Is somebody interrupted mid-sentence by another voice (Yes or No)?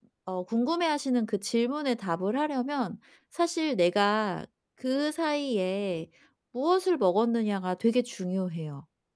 No